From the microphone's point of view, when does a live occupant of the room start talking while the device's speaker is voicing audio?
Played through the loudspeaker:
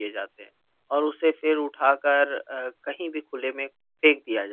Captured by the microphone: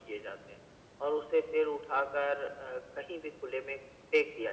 none

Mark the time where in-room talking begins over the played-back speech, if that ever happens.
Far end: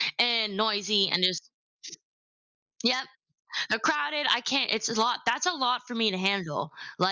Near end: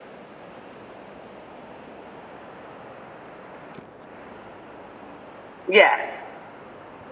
5.7 s

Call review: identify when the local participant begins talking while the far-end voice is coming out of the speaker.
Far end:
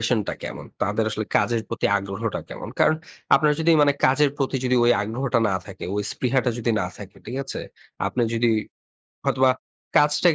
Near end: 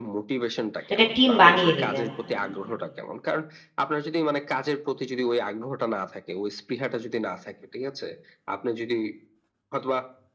0.9 s

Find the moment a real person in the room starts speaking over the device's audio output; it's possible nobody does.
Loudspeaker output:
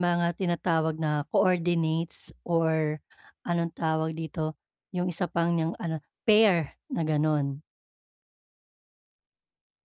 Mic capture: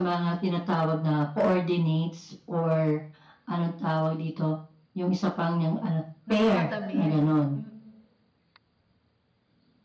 6.3 s

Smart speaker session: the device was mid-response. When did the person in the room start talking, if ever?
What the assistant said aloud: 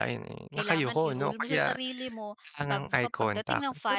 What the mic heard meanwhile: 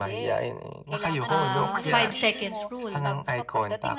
1.2 s

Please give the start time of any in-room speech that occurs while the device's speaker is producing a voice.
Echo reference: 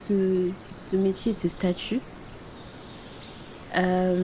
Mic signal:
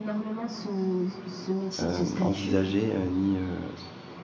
1.8 s

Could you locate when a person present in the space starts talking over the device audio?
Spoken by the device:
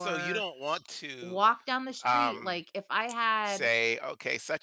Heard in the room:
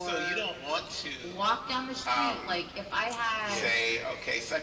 3.4 s

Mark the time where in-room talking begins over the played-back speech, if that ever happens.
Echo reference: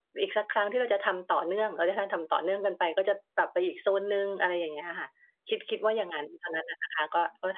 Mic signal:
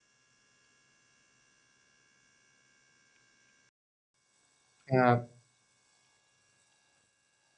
4.9 s

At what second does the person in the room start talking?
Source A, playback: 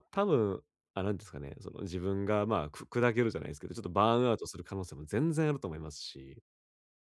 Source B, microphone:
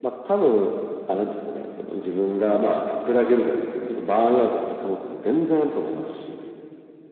none

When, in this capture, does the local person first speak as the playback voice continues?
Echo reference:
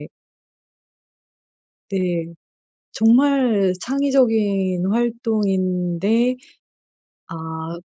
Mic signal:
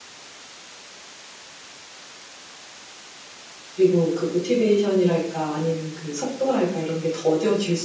3.8 s

